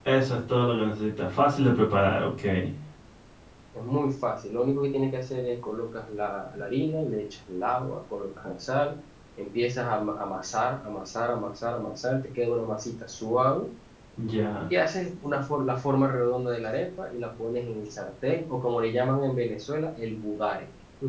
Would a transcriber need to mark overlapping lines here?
No

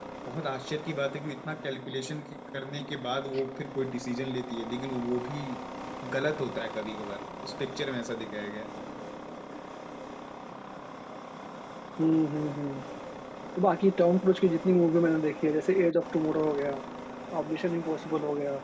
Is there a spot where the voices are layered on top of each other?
No

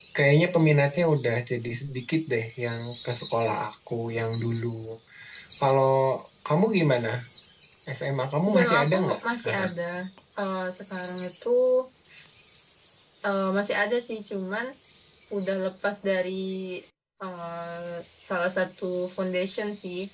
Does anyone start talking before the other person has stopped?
Yes, from 8.5 s

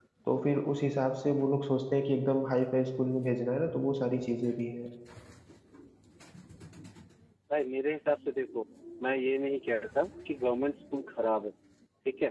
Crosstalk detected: No

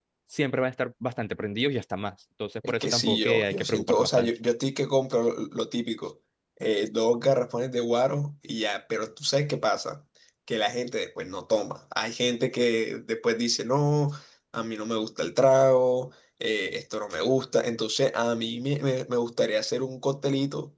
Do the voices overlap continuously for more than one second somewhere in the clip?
Yes, from 2.6 s

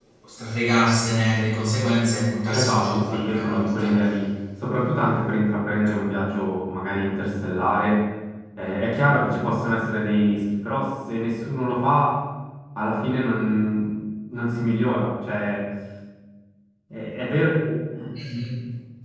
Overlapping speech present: Yes, from 2.5 s

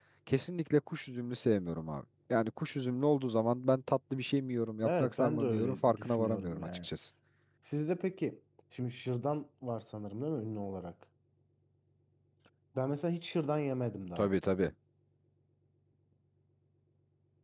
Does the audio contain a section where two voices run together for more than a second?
Yes, from 4.8 s

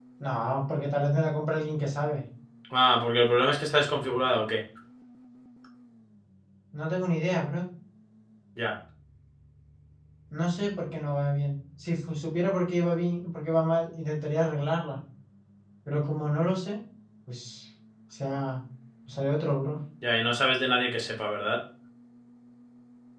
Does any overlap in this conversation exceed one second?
No

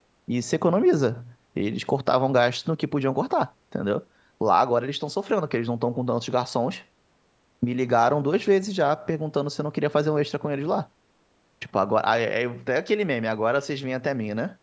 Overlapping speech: No

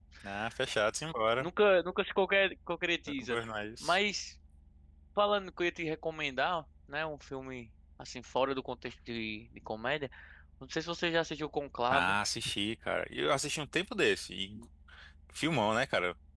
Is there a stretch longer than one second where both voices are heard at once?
No

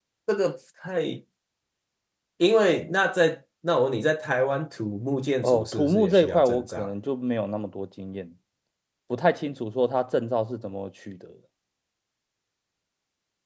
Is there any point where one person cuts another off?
Yes, from 5.4 s

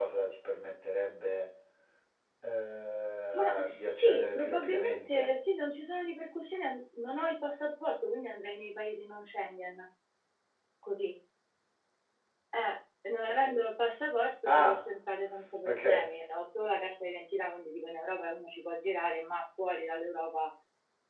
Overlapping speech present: Yes, from 3.3 s

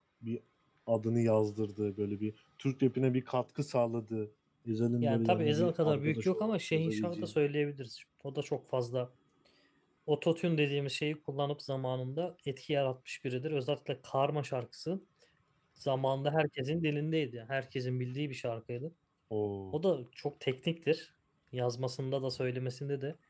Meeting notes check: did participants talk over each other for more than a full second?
Yes, from 5.0 s

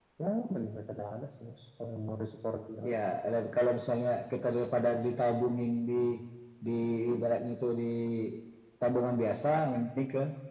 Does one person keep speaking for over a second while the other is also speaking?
No

